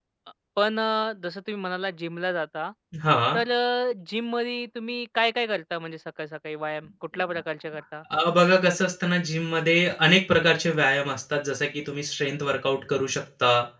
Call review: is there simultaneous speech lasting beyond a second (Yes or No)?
No